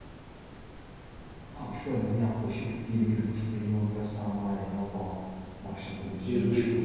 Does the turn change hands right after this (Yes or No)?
Yes